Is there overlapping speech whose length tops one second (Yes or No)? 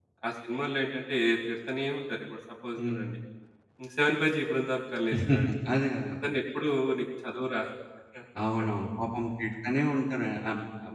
No